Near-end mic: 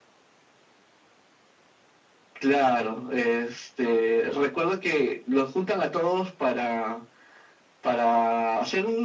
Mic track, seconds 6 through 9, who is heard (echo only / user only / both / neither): echo only